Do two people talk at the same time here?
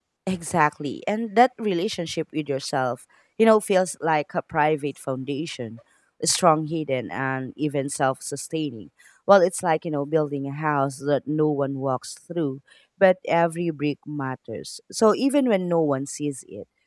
No

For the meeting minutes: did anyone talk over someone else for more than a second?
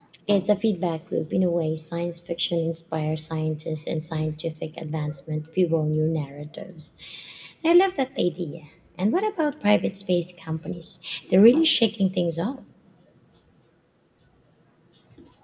No

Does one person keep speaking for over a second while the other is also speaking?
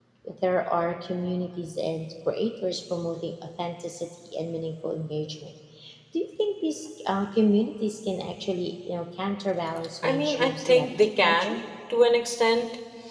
Yes, from 10.0 s

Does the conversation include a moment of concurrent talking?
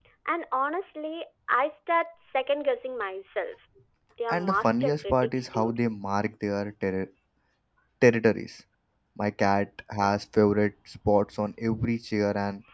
Yes, from 4.3 s

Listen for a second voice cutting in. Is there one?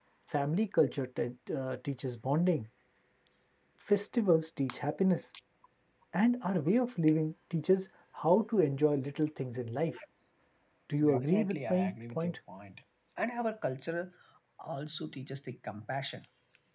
Yes, from 11.0 s

